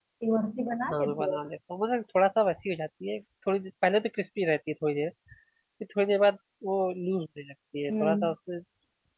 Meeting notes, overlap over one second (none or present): none